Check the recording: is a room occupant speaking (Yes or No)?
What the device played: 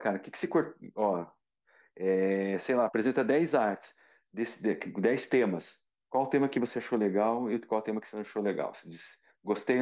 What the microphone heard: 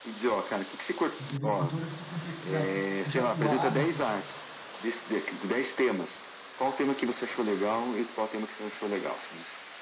Yes